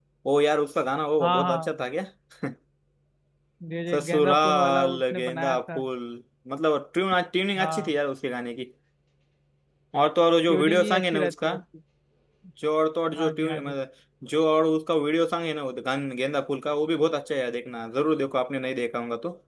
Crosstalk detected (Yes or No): Yes